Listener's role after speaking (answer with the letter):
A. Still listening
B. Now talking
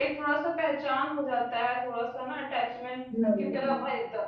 A